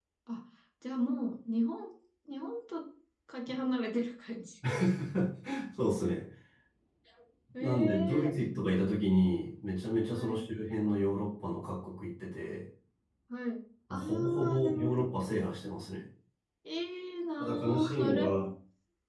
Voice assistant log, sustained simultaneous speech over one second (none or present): present